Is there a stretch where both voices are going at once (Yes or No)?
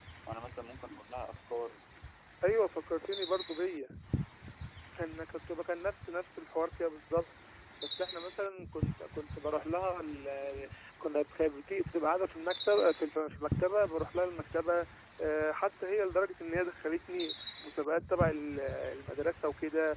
No